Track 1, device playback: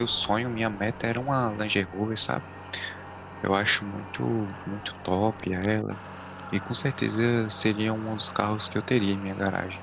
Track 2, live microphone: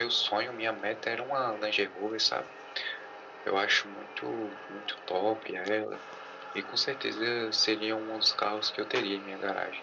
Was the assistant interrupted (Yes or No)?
No